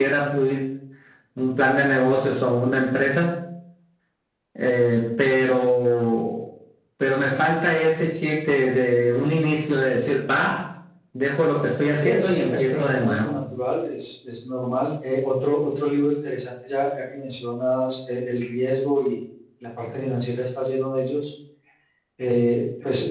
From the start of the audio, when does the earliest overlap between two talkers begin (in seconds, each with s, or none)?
12.0 s